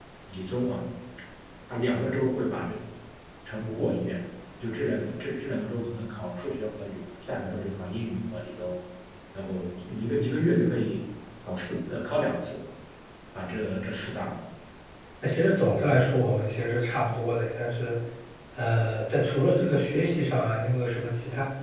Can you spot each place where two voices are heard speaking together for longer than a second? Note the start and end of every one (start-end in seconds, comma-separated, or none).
none